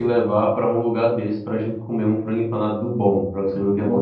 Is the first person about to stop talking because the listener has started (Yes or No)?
Yes